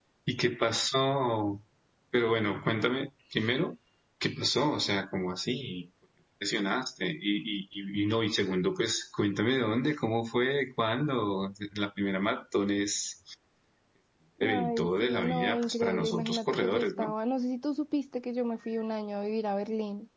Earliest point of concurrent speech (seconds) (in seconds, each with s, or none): 14.4 s